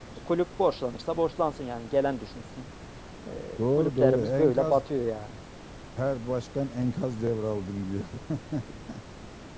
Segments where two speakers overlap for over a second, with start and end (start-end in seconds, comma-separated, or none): 3.6-4.8